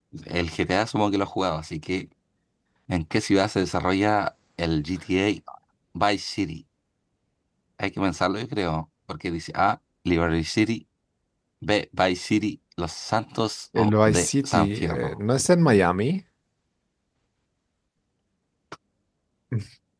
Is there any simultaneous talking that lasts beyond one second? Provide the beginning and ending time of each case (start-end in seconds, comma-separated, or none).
13.8-15.2